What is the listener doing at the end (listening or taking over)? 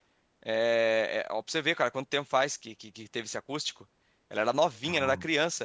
listening